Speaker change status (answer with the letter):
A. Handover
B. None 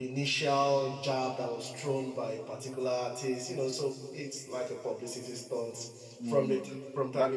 A